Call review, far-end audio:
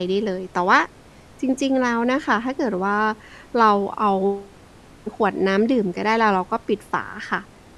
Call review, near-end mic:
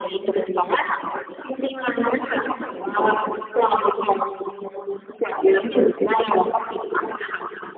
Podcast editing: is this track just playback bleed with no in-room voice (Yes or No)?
Yes